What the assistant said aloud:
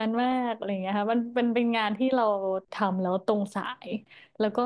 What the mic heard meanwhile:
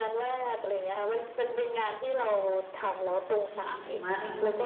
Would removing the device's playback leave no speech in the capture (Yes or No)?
No